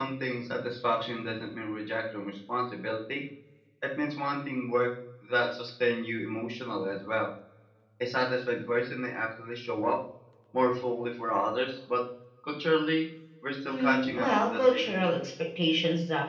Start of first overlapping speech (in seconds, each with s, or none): 13.7 s